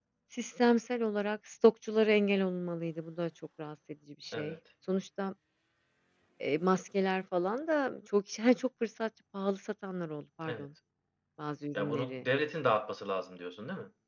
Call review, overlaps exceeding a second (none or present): none